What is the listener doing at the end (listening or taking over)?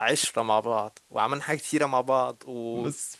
taking over